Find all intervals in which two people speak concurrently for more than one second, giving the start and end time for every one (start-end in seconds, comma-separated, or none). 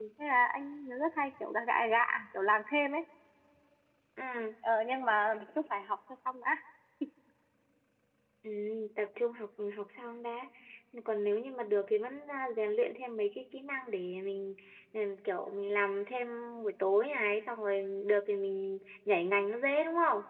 none